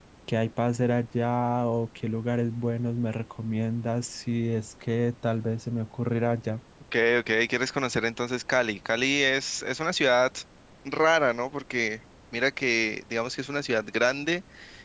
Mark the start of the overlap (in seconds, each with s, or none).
none